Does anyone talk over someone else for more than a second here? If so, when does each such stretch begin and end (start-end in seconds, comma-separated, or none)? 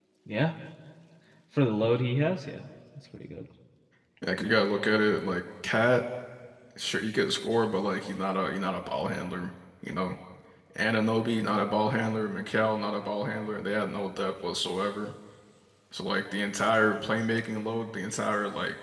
none